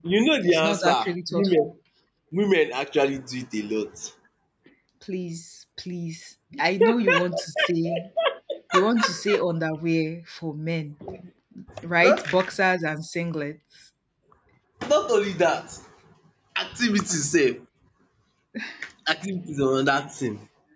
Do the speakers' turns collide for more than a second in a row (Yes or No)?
Yes